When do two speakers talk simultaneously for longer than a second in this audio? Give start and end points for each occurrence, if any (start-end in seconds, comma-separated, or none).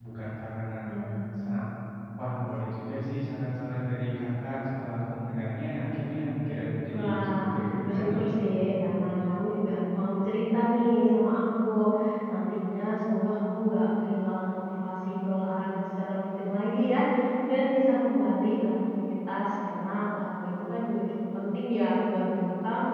6.9-8.2